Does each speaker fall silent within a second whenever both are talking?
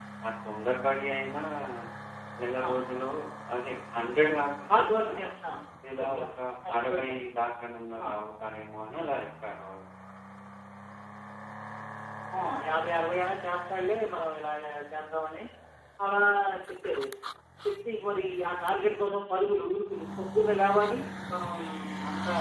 Yes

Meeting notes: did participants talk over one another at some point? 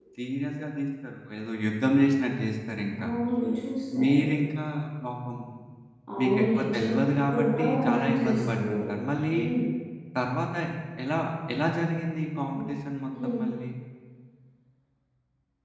Yes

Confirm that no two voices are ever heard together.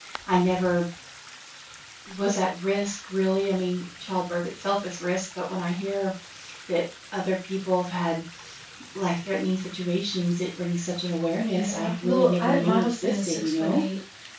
No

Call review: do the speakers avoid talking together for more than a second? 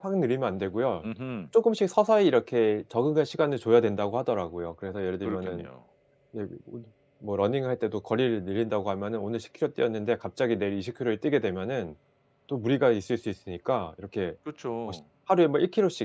Yes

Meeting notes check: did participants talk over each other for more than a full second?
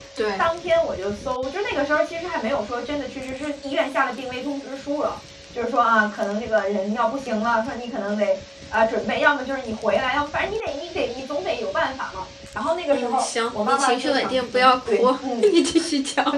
Yes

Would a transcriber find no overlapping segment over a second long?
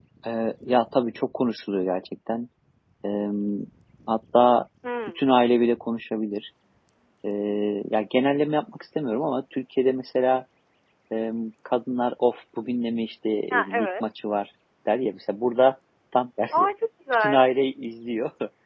Yes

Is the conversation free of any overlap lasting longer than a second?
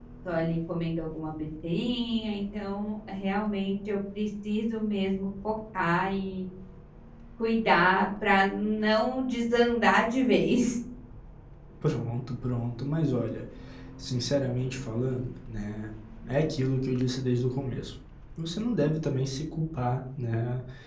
Yes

